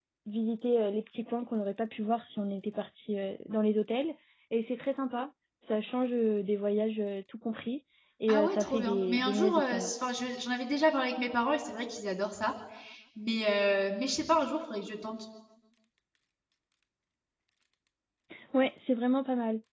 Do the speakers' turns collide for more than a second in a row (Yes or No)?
Yes